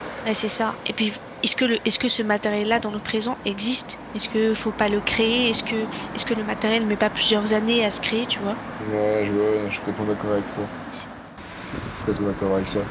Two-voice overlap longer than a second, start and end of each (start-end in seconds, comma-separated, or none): none